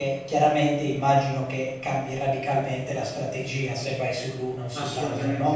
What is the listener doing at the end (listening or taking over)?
taking over